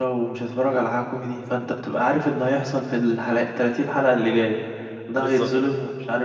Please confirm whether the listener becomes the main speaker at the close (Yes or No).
No